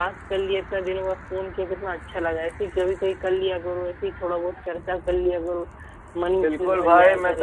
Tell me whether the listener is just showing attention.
No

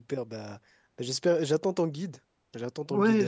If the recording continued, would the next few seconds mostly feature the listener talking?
Yes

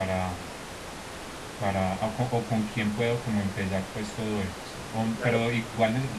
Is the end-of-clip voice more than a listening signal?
No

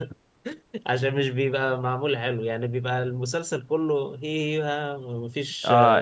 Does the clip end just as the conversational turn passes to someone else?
Yes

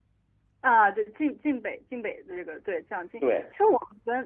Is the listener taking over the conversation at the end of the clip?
No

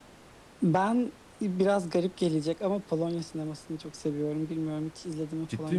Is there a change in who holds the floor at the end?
Yes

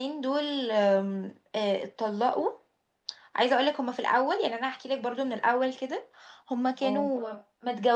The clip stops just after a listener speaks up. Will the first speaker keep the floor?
Yes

